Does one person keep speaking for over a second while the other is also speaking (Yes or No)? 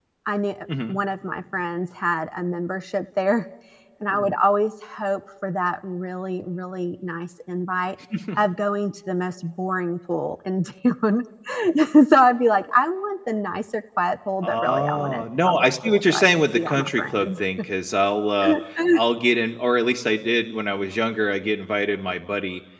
Yes